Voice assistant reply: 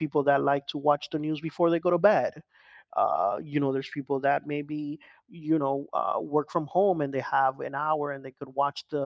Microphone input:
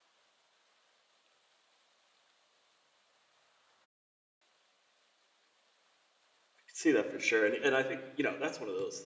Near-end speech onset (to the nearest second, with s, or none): 7 s